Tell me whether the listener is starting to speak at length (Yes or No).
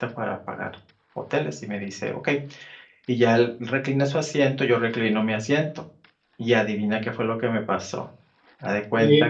Yes